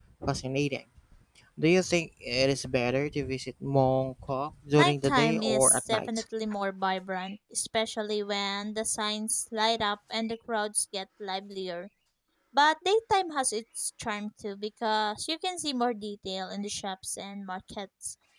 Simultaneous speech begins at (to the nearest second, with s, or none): 5 s